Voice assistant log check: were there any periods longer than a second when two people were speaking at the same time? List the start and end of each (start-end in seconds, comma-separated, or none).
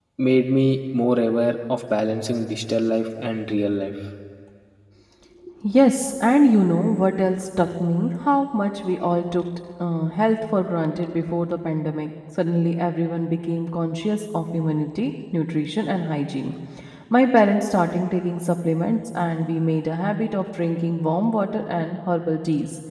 none